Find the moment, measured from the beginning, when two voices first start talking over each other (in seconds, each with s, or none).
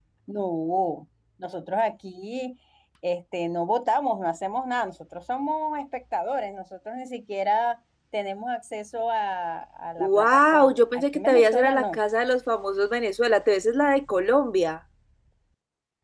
10.0 s